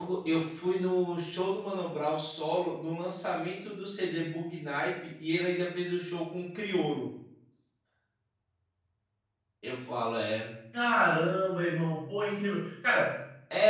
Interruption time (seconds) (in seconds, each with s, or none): none